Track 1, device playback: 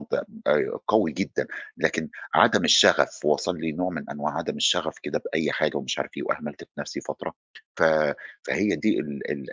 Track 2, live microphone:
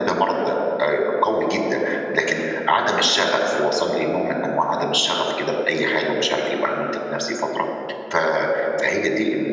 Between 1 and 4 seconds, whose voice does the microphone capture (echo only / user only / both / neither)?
echo only